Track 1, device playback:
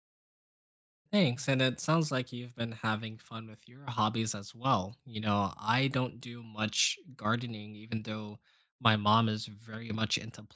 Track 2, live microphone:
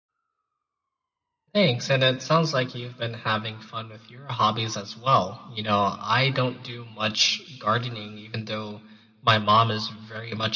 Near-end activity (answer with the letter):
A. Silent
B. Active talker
A